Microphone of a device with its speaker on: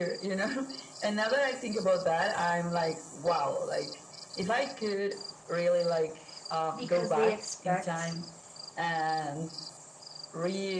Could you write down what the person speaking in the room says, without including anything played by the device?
because they expect

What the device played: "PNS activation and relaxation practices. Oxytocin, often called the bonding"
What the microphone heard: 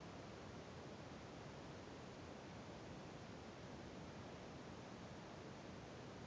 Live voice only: none

